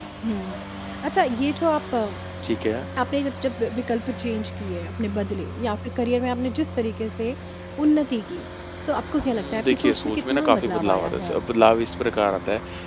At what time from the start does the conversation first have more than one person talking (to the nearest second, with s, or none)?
9 s